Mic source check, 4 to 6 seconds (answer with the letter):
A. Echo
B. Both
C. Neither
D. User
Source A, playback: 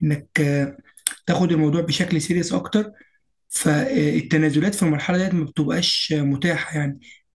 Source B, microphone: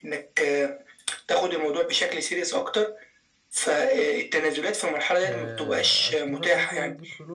B